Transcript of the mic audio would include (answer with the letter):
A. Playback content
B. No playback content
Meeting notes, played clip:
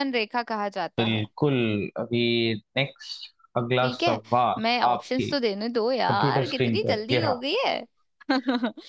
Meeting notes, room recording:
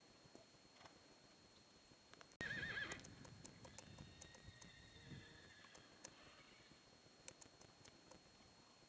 B